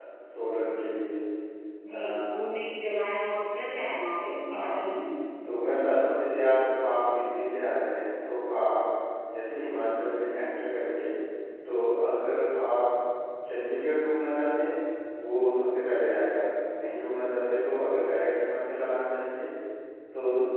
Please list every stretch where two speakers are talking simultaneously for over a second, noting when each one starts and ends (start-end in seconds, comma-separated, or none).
none